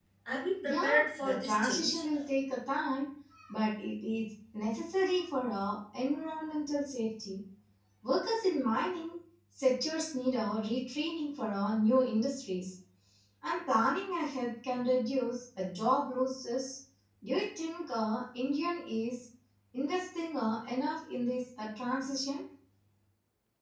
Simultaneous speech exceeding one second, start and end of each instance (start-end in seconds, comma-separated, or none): 0.6-1.9